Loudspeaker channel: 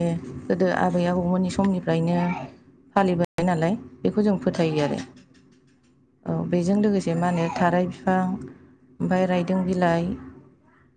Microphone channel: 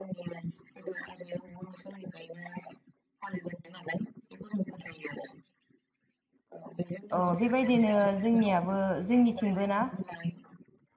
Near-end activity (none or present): present